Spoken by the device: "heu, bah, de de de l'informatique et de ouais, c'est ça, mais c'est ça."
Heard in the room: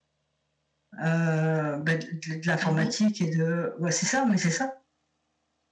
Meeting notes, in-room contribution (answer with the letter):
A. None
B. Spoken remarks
B